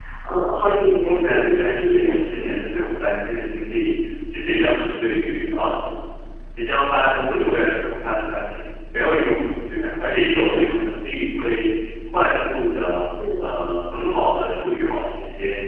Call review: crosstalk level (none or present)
present